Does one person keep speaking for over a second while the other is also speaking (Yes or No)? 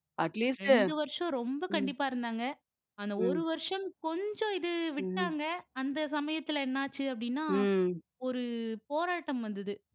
No